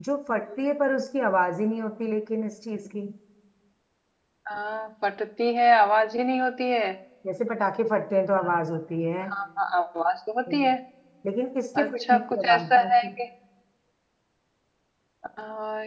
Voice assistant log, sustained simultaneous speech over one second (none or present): present